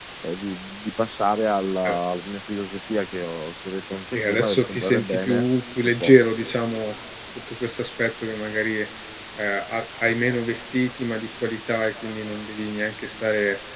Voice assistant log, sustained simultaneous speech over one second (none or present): present